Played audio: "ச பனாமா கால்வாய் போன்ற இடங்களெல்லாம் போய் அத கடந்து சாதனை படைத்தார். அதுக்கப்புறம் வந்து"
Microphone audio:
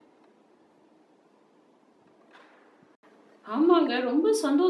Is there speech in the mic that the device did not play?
Yes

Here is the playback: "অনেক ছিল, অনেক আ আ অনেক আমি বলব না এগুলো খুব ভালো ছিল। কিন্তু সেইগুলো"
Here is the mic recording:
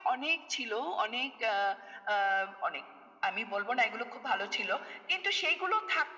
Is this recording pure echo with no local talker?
Yes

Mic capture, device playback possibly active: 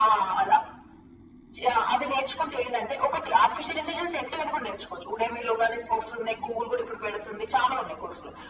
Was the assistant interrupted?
No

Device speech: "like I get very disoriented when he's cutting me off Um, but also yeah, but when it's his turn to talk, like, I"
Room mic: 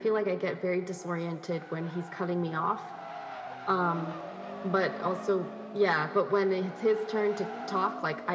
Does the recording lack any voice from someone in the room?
Yes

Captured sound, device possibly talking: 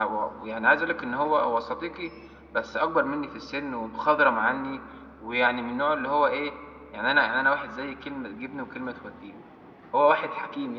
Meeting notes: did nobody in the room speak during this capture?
No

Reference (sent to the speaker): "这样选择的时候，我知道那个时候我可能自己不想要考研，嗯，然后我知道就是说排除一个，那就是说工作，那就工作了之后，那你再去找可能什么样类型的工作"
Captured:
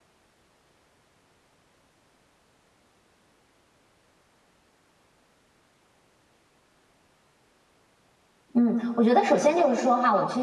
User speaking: Yes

